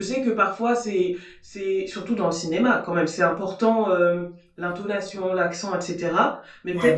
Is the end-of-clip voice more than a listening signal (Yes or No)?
No